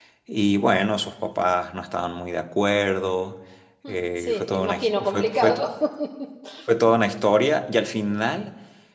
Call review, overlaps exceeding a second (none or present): present